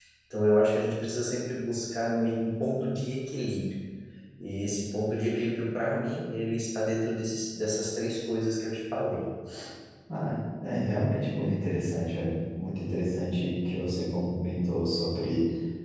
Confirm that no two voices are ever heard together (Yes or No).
Yes